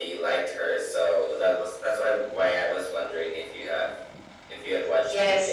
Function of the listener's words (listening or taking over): taking over